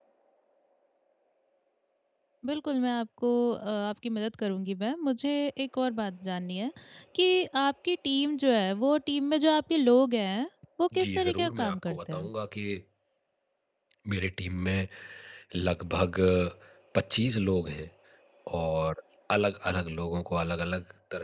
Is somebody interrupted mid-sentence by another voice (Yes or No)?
Yes